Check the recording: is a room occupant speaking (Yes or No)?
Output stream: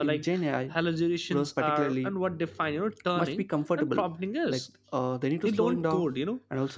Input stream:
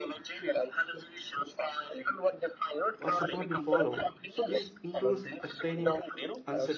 Yes